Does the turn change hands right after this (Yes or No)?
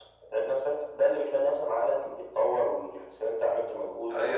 Yes